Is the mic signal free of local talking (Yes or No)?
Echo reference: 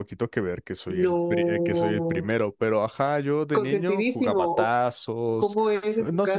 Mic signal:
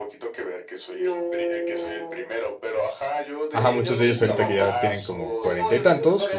No